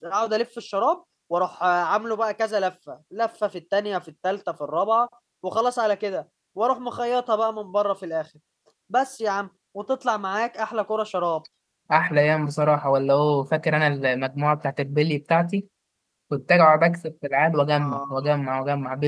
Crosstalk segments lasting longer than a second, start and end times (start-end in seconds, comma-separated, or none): none